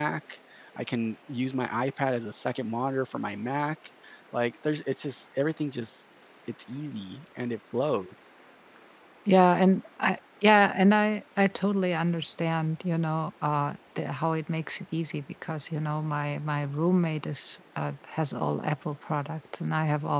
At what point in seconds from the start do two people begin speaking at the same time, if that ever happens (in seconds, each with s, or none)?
none